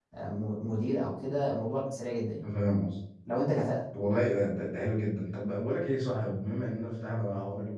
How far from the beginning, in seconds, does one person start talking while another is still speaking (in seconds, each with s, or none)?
none